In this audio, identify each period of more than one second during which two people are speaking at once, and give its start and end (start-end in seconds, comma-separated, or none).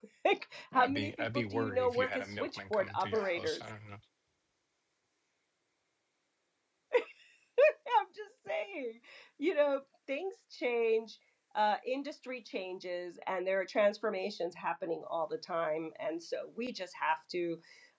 0.7-3.6